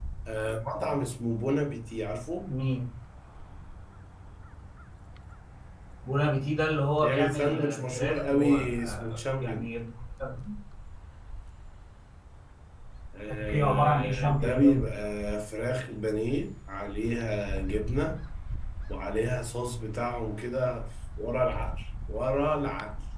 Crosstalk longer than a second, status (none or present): present